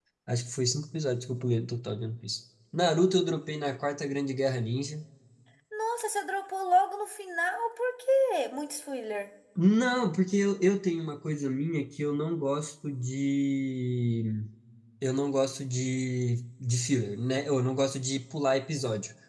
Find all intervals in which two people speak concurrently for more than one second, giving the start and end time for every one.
none

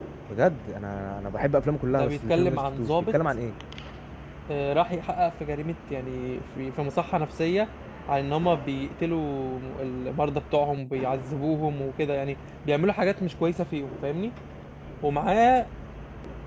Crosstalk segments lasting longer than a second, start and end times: 1.9-3.1

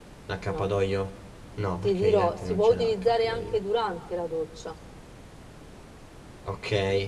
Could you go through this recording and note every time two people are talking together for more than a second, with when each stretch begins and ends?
1.8-3.6

